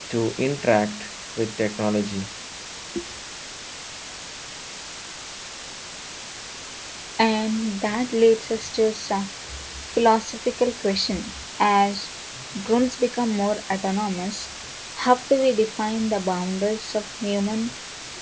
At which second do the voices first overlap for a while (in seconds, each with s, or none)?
none